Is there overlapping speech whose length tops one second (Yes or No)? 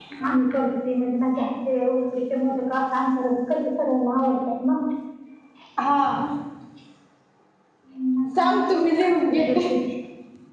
Yes